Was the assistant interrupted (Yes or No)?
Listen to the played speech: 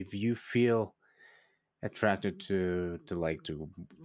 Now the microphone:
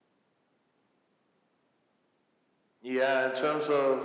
Yes